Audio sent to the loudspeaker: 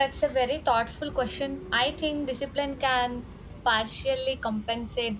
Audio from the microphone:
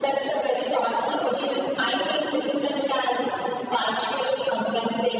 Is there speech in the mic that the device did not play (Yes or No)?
No